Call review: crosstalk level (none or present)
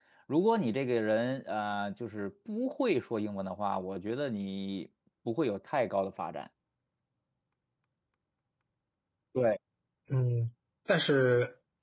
none